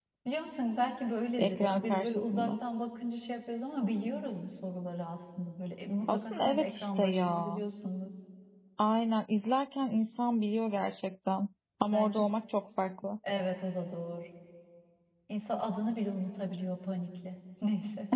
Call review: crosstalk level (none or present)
present